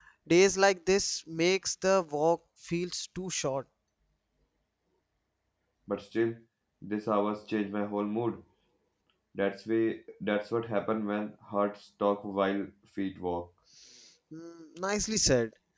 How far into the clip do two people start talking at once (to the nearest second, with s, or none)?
none